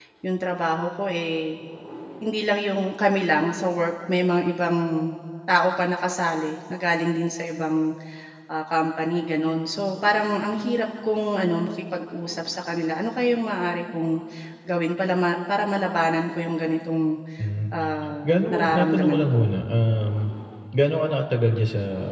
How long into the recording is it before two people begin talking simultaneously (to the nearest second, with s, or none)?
18 s